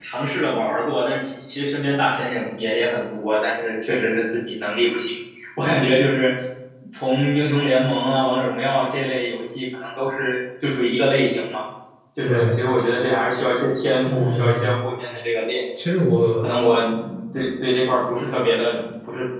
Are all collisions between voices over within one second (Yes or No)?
Yes